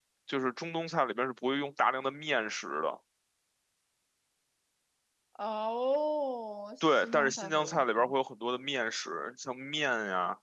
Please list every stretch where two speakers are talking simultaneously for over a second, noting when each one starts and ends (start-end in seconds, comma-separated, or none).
6.8-8.1